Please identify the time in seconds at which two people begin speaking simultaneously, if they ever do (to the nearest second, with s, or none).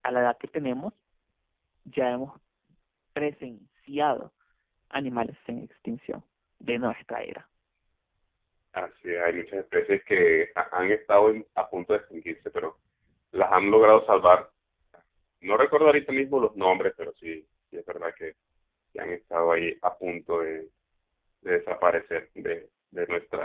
none